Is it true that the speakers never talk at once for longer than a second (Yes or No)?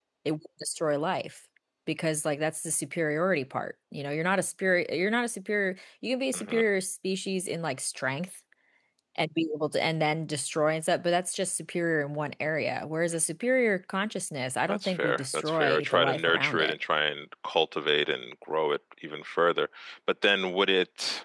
No